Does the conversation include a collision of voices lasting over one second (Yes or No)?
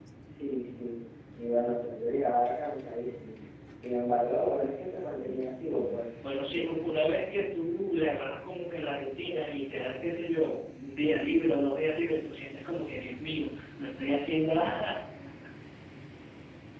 No